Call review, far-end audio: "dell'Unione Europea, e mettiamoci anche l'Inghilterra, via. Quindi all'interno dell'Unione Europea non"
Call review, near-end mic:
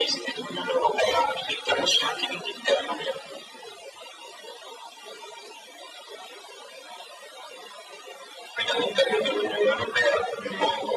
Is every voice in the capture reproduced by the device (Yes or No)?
Yes